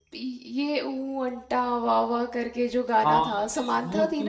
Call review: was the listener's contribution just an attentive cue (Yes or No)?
No